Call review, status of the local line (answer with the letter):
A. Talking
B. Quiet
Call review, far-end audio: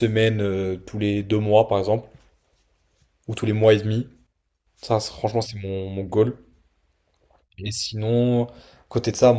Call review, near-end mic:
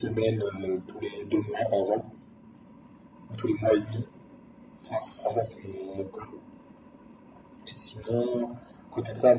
B